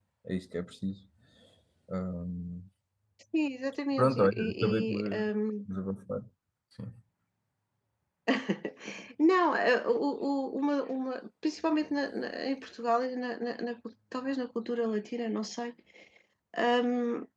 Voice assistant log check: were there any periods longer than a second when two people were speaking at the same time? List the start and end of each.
4.0-5.3

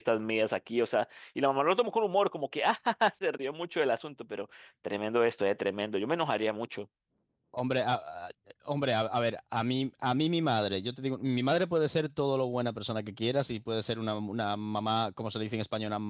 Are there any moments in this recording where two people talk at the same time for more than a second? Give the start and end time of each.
none

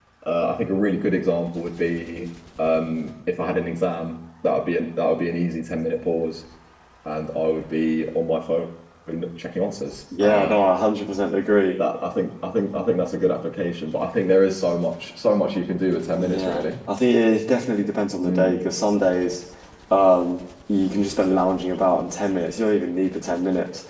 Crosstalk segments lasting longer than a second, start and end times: none

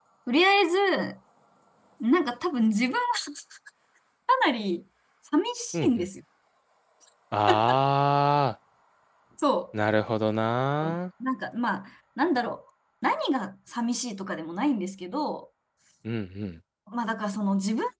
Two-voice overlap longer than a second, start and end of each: none

